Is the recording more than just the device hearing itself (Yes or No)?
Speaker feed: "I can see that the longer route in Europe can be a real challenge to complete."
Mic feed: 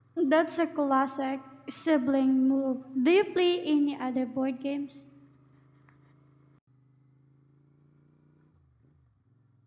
Yes